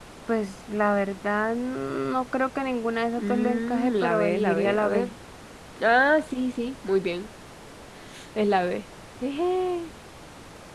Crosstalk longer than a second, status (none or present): present